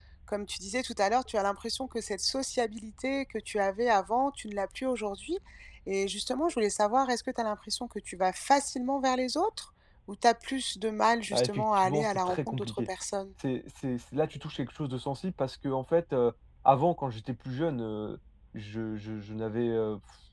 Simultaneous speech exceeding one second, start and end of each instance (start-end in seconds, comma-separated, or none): 11.3-12.9